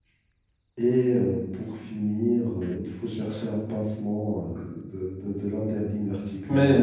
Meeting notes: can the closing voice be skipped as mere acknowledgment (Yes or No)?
No